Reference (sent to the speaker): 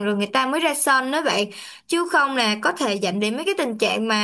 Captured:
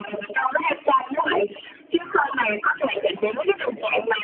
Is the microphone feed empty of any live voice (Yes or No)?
No